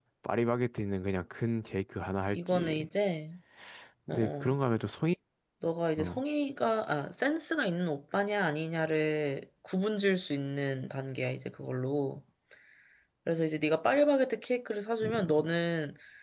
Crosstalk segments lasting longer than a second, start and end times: none

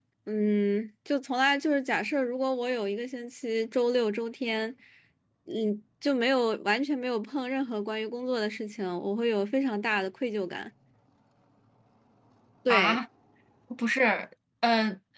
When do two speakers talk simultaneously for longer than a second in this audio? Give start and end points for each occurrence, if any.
none

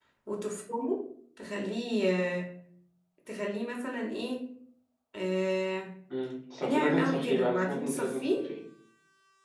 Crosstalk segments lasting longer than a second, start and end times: 6.7-8.4

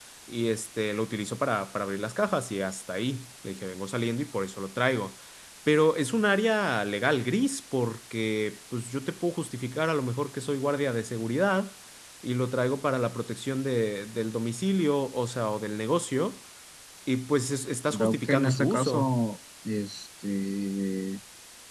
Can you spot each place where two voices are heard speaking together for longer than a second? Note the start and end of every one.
17.9-19.1

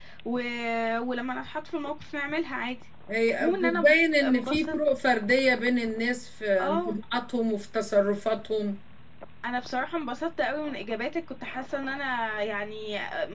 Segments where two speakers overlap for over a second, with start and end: 3.4-4.8

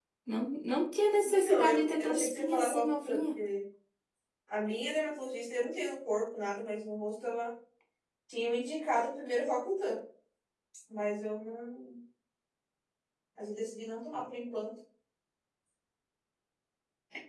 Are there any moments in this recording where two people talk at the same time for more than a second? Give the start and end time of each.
1.4-3.4

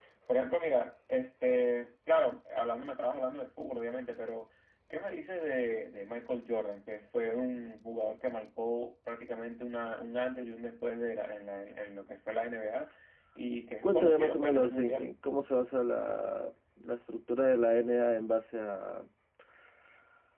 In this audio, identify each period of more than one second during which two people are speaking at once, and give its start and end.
13.8-15.1

